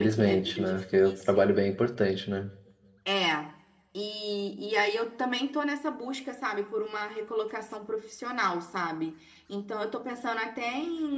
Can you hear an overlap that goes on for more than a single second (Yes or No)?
Yes